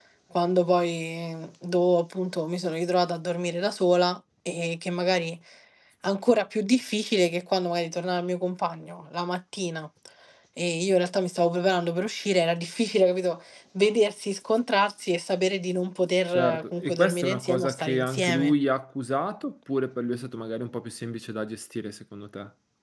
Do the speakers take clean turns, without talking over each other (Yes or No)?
No